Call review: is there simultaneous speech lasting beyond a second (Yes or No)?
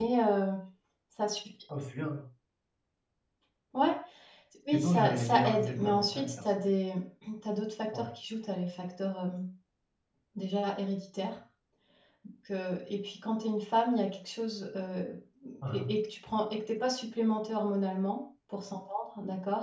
Yes